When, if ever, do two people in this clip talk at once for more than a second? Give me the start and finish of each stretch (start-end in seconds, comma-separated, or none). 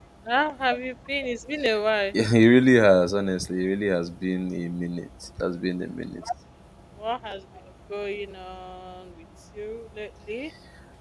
none